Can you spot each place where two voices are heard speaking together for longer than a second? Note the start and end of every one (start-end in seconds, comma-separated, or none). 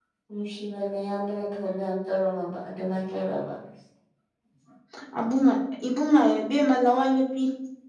none